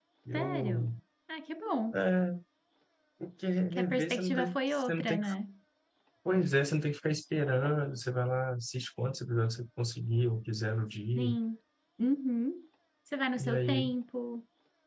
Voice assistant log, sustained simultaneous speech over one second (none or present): present